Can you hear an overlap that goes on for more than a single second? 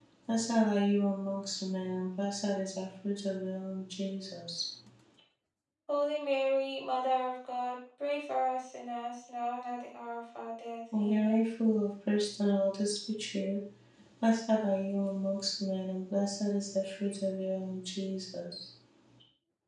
No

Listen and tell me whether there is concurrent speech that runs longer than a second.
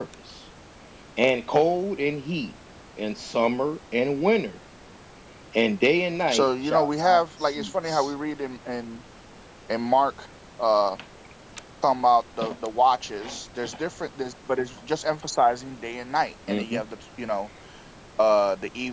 Yes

